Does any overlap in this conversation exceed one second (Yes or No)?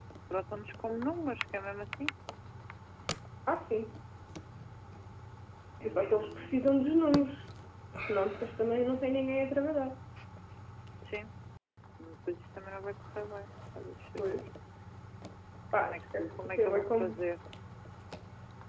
Yes